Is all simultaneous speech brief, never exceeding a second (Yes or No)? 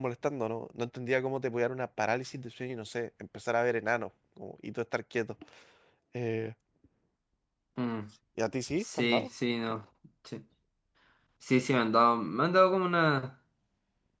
Yes